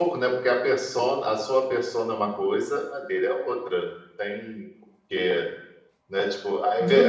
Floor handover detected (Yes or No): Yes